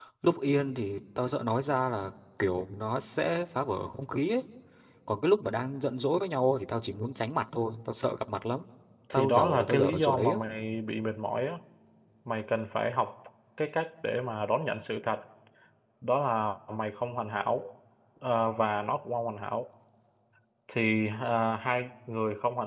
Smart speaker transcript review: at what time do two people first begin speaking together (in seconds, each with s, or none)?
9.1 s